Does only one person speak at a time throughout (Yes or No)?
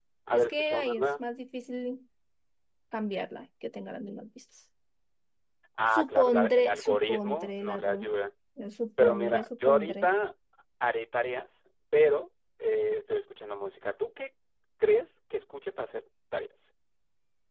No